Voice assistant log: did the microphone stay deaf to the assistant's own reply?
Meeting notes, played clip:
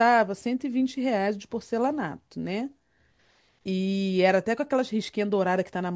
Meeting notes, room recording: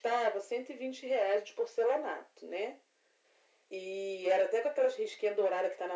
No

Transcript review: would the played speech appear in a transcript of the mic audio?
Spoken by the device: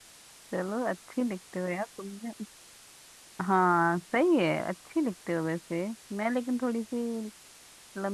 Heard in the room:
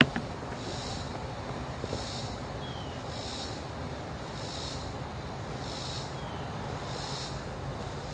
No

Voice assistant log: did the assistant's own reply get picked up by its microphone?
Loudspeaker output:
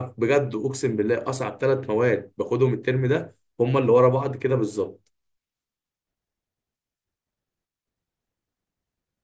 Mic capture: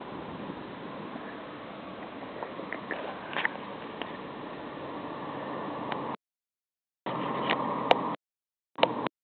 No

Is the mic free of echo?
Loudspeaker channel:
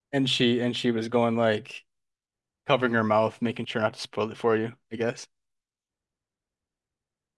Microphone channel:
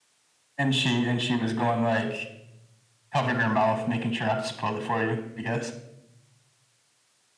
No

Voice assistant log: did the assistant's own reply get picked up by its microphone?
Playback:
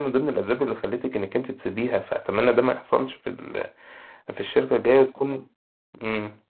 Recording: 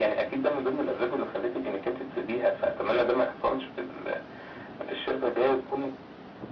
Yes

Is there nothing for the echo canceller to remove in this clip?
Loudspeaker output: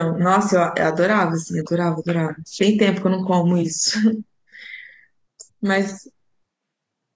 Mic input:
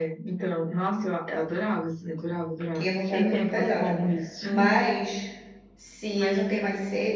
No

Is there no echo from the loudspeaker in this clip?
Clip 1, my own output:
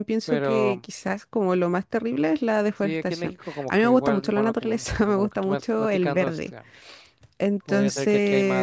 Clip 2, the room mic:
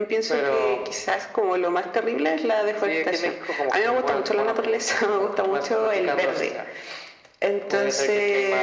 No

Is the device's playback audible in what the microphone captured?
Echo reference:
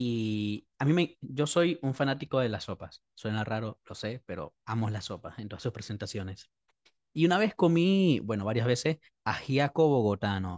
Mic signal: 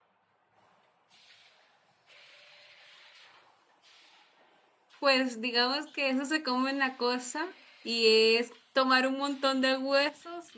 No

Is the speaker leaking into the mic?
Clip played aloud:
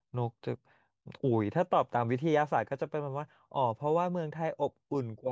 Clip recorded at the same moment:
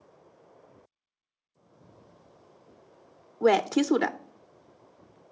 No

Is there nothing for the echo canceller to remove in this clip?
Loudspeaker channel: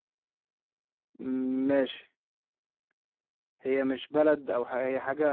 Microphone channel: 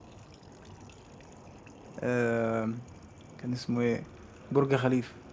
Yes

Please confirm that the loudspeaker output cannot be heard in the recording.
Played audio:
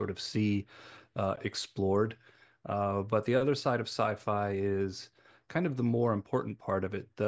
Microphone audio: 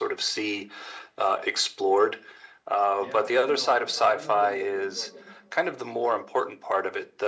No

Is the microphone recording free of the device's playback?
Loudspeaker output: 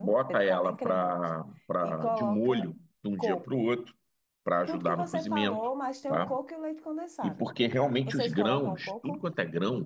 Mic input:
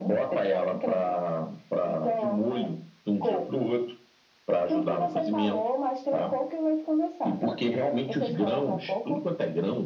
No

